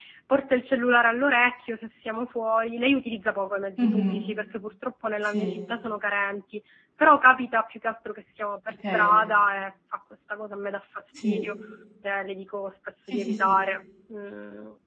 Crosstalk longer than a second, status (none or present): none